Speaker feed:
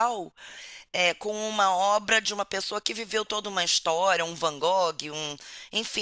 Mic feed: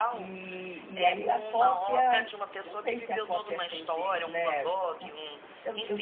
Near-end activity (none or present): present